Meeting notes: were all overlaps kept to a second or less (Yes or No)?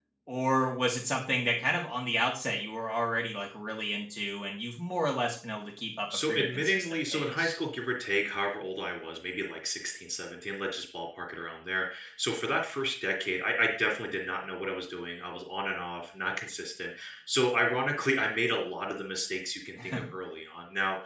No